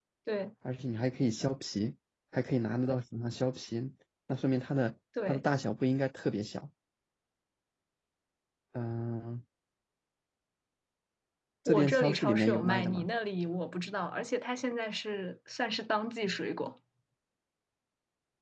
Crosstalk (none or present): present